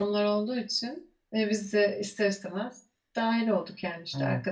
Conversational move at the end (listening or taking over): listening